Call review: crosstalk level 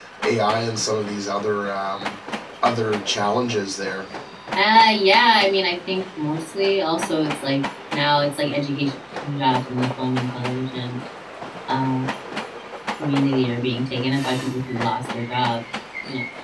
none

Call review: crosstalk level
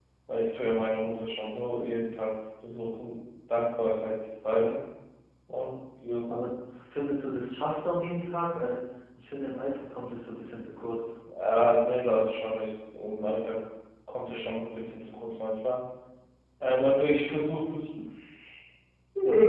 none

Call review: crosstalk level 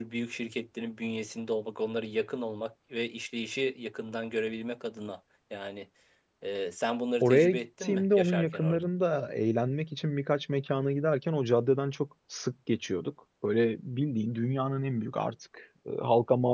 present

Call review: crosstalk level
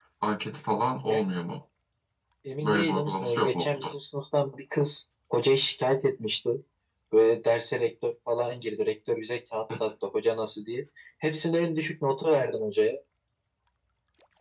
present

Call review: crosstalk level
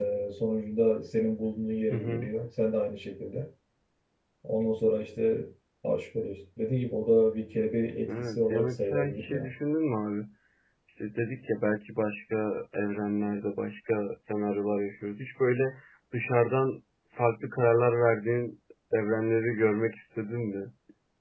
present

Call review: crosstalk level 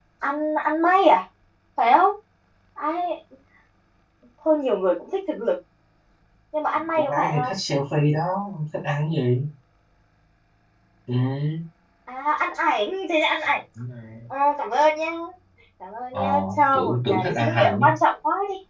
present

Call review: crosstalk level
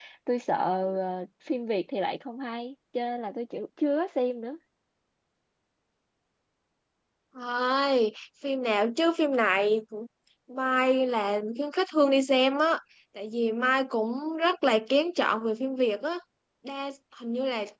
none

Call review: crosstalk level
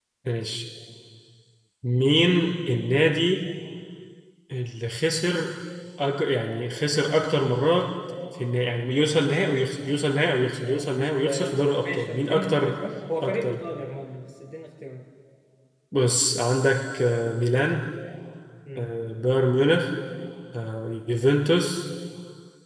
present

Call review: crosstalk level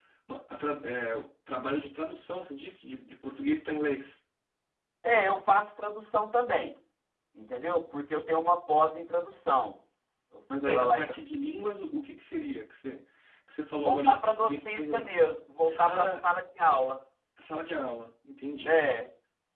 present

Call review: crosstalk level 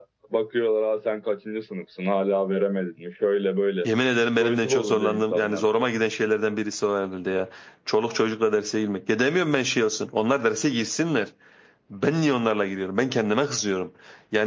present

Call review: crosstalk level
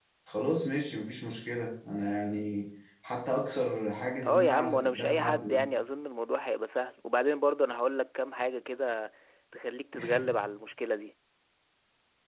present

